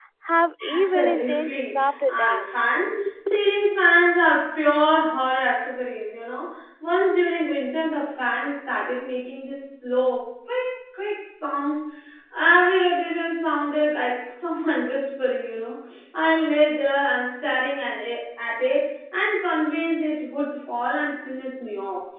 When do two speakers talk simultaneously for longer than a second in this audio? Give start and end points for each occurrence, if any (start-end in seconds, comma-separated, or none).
0.7-2.5